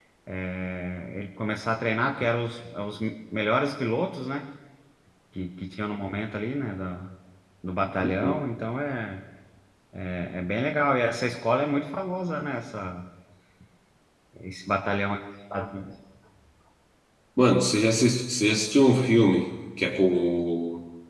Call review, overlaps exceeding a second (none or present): none